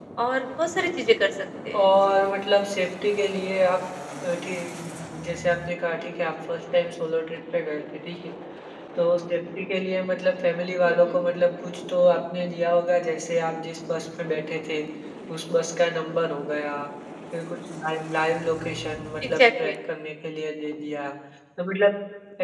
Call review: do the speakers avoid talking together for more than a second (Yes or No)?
Yes